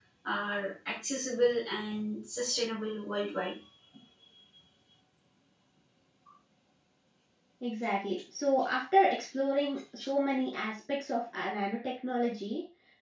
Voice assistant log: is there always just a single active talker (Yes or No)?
Yes